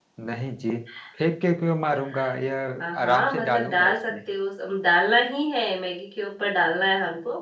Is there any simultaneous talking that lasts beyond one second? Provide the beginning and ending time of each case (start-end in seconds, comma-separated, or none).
2.8-4.1